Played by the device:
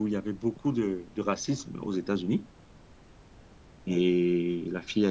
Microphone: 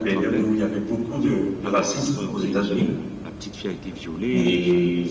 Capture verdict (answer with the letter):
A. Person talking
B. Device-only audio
A